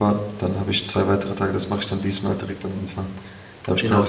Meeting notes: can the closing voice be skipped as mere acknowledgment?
No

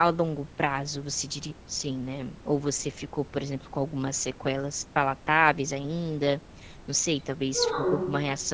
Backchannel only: Yes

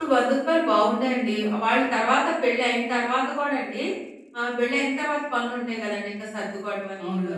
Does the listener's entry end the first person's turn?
No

